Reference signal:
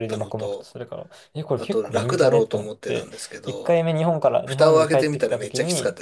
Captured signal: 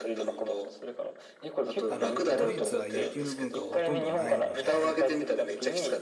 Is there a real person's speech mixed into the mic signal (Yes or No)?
Yes